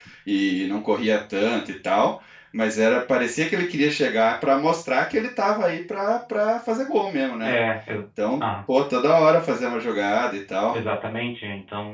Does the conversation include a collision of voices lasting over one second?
No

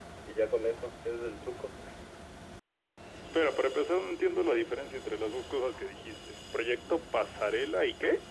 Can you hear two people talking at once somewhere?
No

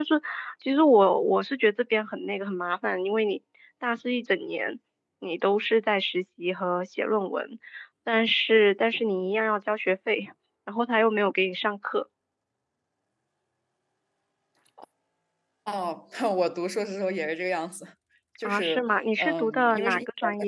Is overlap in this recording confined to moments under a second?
No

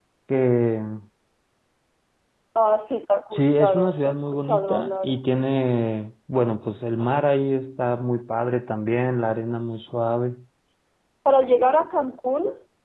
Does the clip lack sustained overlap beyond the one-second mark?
No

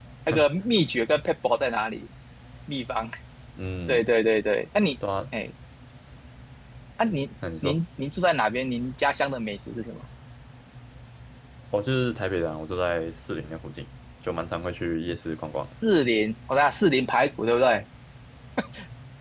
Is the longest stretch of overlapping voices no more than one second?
Yes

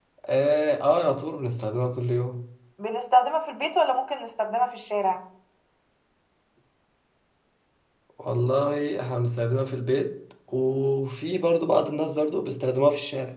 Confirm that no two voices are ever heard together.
Yes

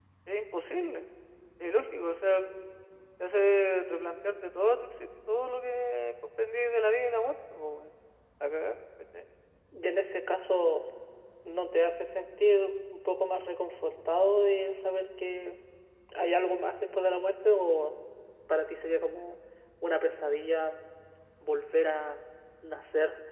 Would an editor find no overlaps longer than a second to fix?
Yes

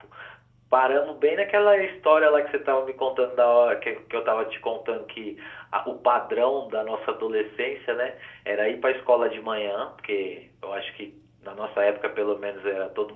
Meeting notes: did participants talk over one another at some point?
No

